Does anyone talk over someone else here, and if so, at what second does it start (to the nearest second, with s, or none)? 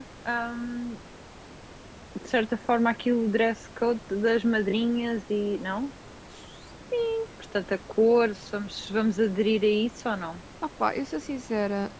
none